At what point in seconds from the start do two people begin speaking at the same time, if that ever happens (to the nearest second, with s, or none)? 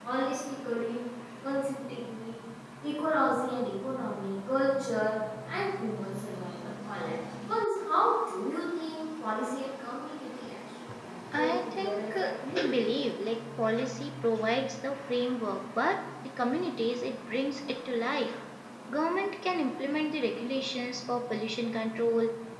11 s